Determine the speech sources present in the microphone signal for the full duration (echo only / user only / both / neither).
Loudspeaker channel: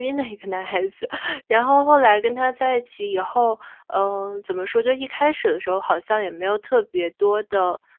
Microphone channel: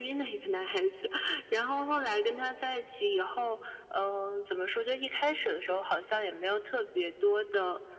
echo only